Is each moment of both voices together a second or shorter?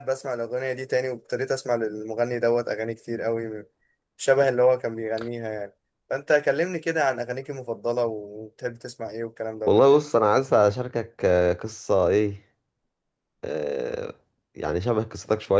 Yes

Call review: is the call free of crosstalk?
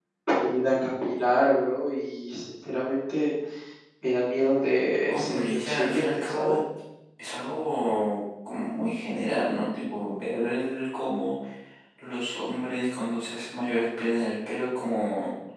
No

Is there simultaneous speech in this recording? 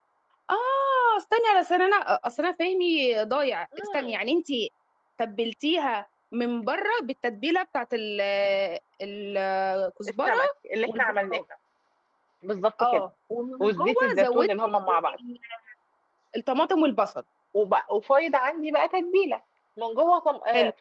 Yes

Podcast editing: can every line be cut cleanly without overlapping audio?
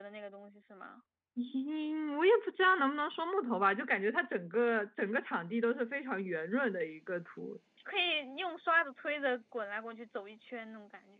Yes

